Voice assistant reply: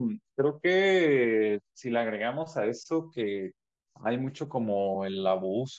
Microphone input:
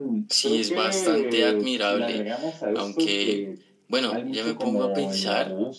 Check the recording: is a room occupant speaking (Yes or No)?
Yes